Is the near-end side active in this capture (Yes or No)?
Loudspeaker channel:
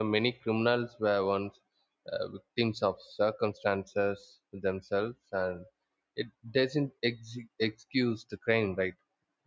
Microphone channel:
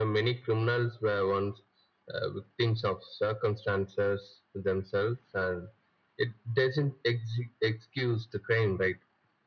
No